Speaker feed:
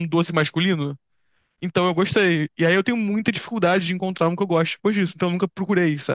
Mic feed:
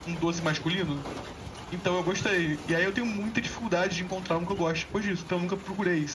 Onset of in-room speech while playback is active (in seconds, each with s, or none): none